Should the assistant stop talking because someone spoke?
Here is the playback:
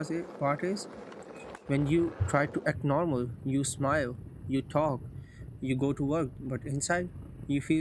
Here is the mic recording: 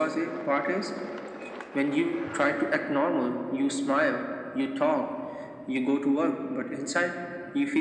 No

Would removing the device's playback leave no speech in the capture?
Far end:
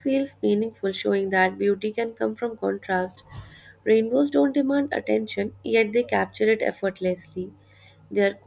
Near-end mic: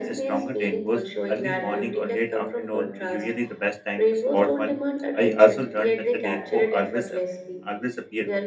No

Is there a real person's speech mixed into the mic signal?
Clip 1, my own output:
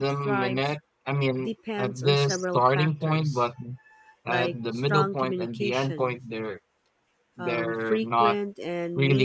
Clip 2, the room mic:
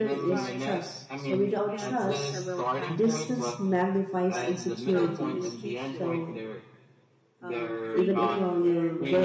Yes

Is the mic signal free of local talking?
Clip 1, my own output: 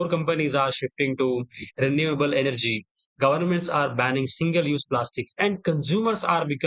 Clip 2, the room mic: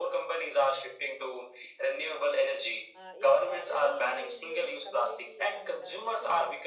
No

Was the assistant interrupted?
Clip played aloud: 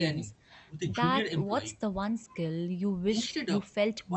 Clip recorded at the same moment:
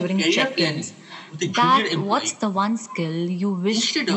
No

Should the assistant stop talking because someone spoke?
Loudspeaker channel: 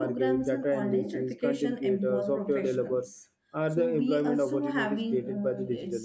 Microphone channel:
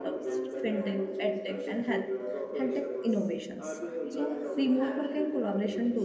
Yes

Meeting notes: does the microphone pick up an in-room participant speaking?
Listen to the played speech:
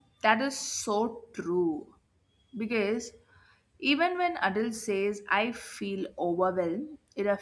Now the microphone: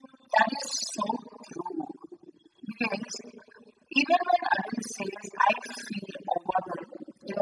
No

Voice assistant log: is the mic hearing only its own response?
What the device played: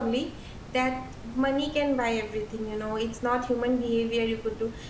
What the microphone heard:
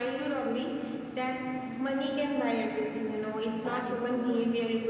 No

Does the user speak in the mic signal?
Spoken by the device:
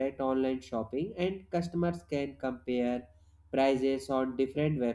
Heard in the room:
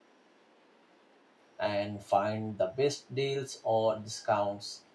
Yes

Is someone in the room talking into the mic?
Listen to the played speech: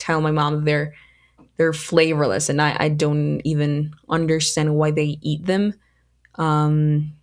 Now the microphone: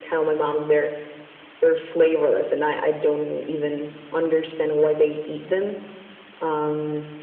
No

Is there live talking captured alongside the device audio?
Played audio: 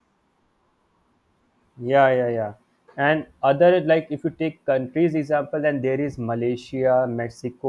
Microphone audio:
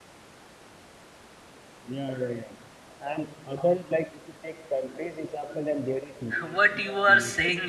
Yes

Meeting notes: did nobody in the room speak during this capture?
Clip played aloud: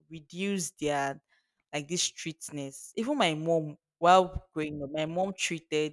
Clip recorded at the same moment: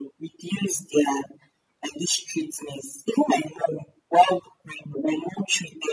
Yes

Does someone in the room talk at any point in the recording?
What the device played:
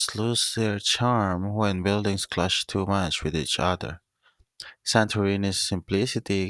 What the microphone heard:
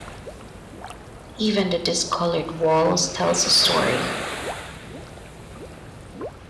Yes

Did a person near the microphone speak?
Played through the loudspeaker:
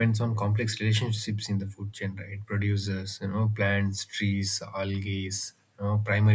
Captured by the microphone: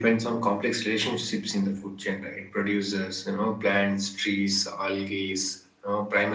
No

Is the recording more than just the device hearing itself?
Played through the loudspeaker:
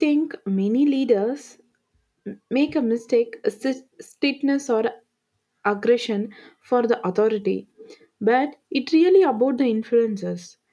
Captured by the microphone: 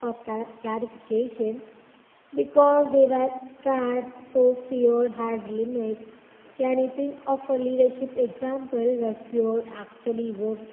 Yes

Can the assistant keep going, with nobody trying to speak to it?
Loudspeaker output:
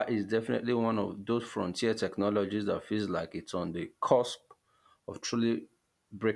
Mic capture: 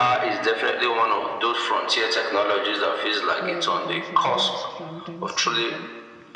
No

